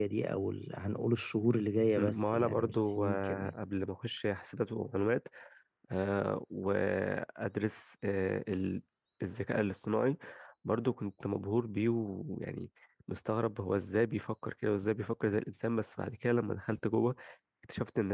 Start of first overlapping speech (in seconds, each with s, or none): 2.0 s